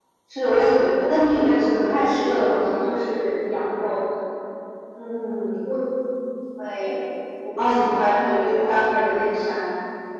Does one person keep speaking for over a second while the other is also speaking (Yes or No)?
Yes